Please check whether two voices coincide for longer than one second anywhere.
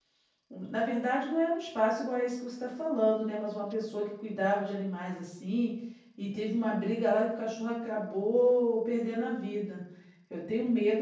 No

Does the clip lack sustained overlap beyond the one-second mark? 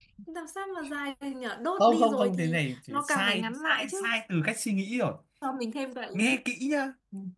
No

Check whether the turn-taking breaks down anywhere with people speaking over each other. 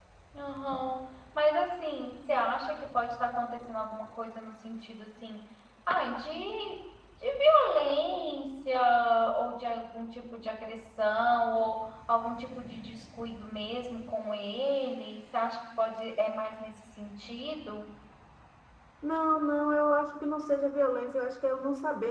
No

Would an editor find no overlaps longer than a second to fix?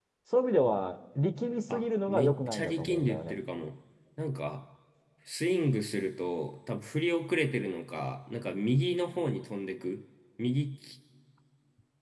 No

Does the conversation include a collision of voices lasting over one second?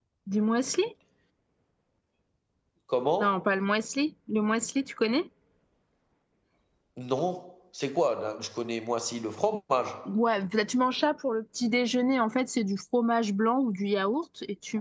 No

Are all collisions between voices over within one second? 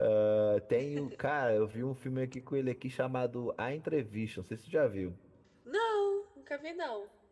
Yes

